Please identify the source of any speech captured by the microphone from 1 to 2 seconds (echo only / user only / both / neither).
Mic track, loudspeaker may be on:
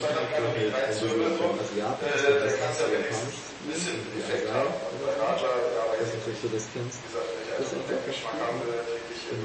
both